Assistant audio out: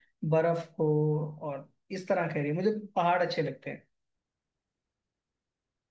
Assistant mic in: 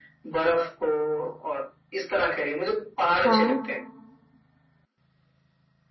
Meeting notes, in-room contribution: present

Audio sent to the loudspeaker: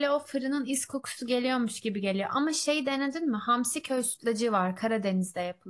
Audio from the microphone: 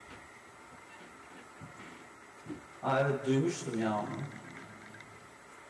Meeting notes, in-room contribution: present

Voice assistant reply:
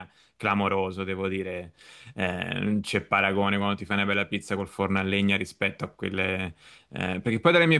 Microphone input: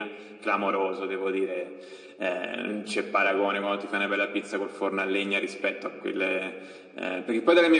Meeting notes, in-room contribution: none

